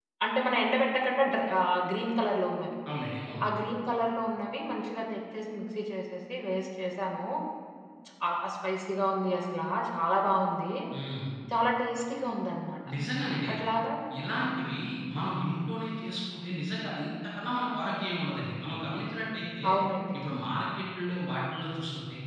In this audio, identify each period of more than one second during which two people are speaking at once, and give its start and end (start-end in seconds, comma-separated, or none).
none